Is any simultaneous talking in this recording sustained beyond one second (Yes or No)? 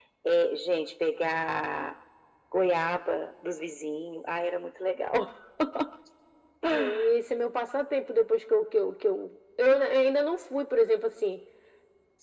No